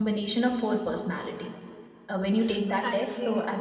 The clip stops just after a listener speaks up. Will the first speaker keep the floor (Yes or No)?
Yes